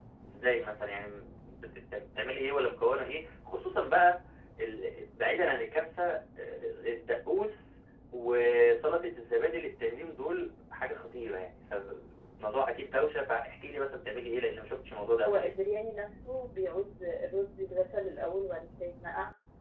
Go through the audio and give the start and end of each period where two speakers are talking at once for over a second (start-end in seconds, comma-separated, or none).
none